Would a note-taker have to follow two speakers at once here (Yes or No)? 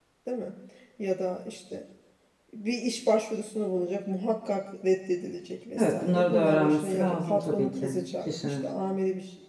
Yes